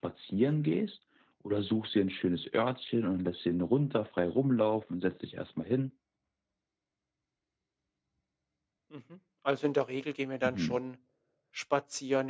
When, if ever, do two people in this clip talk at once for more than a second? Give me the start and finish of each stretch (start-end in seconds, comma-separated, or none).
none